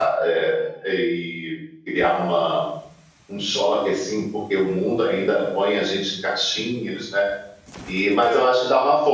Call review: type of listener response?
listening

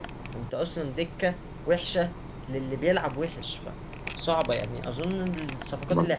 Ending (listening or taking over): listening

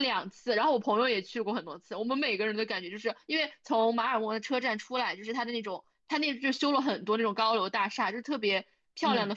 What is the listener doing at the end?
listening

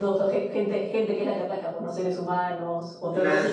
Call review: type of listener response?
taking over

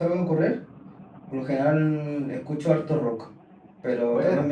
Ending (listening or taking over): listening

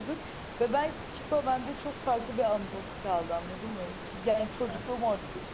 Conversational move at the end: listening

